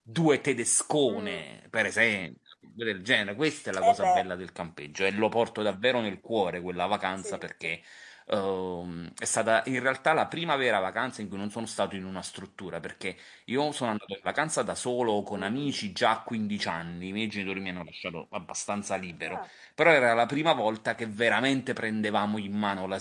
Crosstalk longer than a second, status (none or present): none